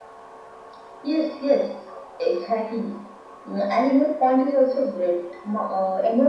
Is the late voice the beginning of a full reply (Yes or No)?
No